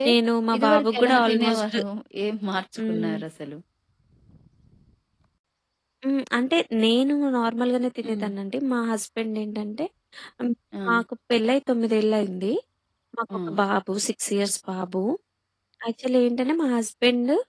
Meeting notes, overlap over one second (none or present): present